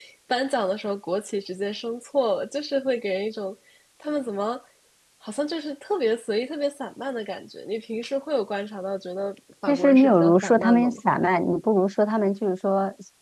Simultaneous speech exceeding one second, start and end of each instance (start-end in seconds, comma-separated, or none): 9.7-11.0